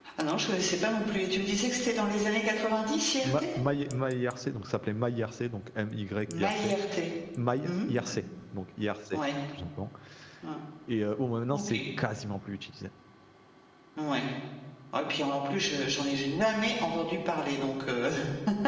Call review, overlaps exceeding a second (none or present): none